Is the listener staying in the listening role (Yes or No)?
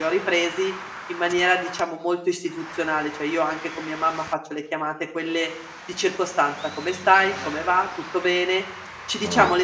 Yes